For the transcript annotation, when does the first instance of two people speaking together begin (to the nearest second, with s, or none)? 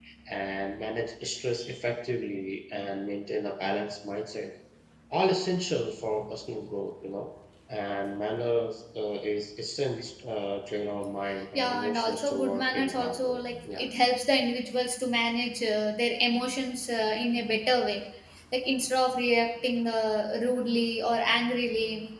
12 s